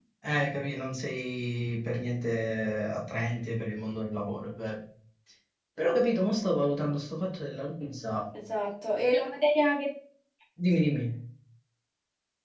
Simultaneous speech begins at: none

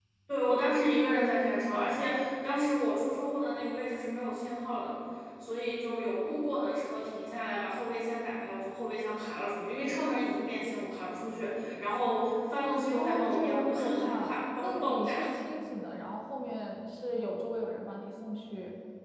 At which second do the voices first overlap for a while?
12.9 s

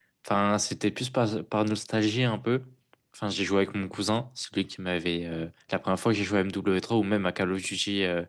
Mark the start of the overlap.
none

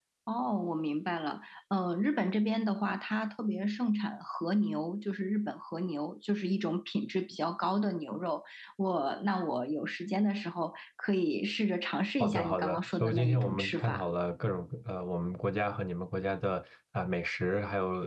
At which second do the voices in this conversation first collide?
12.2 s

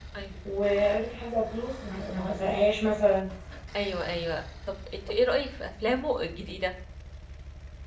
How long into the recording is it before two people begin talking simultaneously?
none

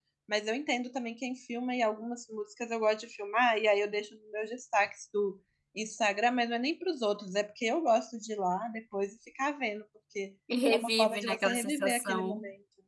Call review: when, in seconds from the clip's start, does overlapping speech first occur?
10.5 s

